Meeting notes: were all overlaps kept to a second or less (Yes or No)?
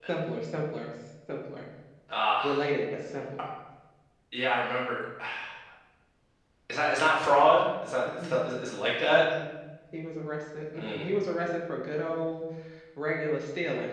Yes